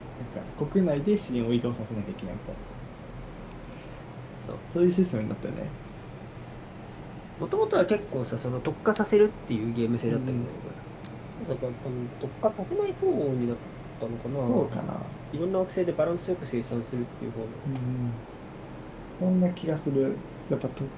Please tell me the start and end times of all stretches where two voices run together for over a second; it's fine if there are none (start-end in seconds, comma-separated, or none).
none